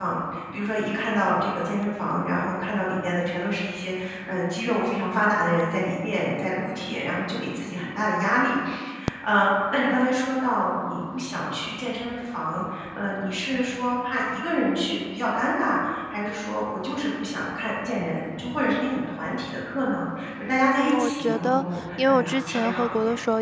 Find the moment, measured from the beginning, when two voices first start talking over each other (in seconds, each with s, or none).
20.8 s